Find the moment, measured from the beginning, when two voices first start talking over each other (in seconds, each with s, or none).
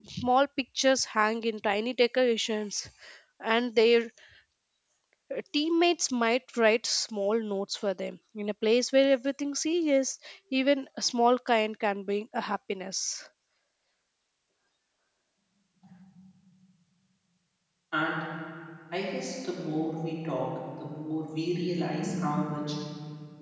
none